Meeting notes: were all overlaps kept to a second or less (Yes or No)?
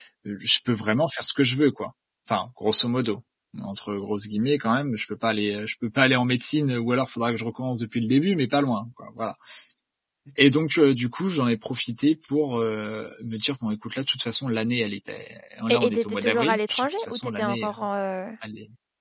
No